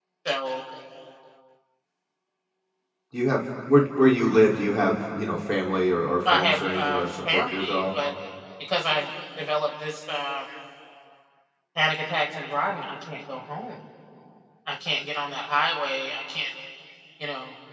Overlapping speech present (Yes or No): Yes